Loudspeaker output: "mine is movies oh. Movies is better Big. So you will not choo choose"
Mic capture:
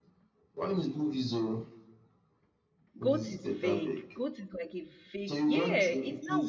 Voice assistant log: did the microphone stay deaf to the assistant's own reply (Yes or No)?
No